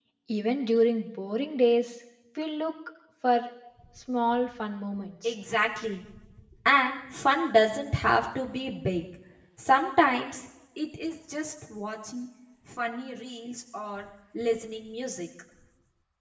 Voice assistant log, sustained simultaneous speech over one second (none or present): none